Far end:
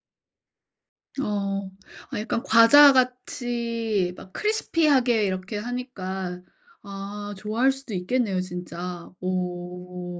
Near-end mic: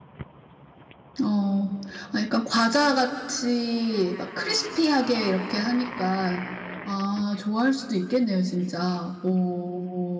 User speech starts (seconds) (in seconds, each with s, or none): none